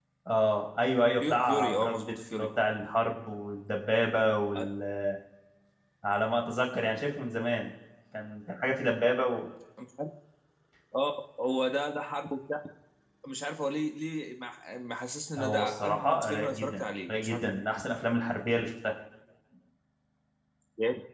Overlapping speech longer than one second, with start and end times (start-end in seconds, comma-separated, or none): 1.2-2.5, 15.4-17.5